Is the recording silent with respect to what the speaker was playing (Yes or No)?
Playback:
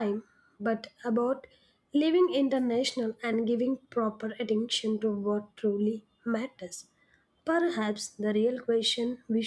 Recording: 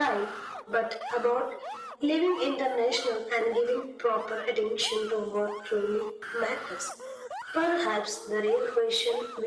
No